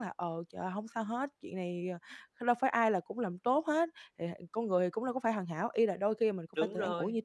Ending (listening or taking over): listening